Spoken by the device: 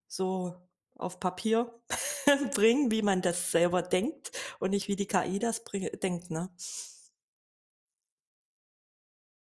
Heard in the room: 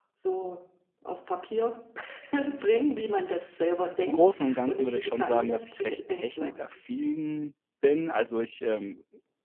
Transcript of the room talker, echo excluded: im Großen und Ganzen würde ich schon sagen, dass ich recht technikaffin bin. Also, ich, ähm,

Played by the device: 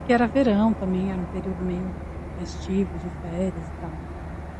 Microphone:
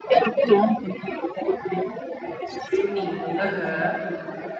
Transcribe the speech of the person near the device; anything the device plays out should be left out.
Se unindo. Aham.

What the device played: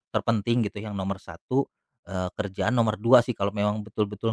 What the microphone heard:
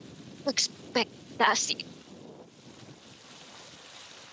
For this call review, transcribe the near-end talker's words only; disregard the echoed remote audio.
ekspektasi

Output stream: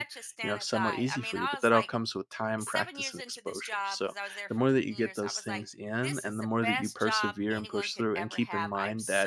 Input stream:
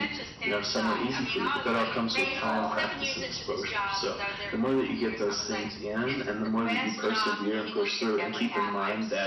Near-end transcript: pretty painful

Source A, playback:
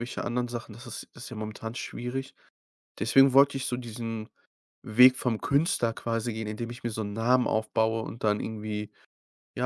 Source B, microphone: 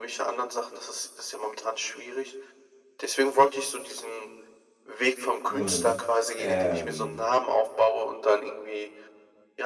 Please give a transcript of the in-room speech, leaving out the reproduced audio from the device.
Mhm. Ähm,

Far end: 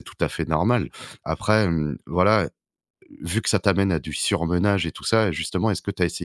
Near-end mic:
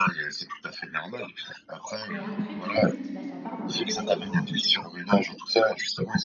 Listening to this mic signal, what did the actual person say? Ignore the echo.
et après très vite, bah, ça part dans tous les sens.

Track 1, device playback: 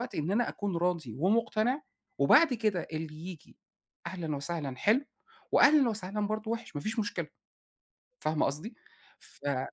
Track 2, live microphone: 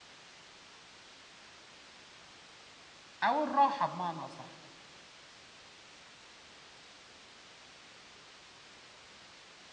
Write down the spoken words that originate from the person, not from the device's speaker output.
أو الراحة بمعنى أصح.

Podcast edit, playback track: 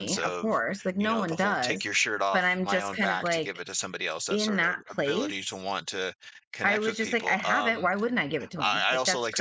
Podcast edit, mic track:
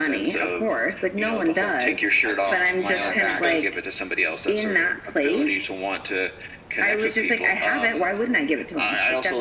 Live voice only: I see what you mean. Yeah, because

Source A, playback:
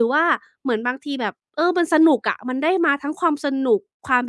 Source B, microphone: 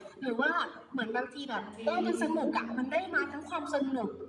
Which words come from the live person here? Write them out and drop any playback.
อาจริง

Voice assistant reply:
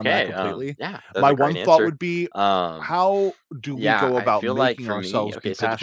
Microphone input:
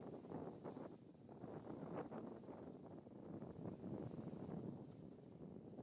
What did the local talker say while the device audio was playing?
none

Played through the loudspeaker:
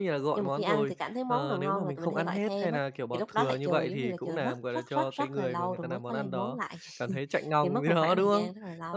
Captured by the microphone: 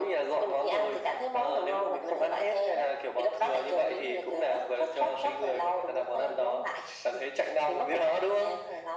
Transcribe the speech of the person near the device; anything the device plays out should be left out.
none

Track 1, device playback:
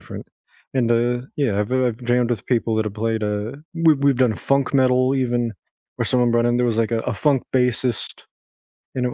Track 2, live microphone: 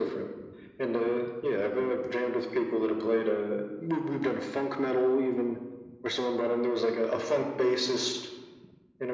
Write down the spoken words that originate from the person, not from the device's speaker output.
none

